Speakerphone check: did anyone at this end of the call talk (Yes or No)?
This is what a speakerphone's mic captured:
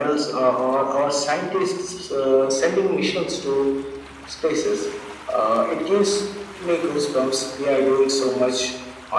No